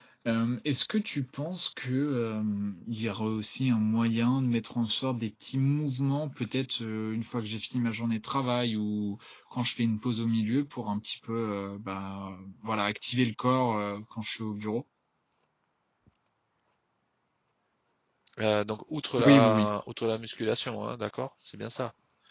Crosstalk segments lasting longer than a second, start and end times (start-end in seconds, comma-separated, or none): none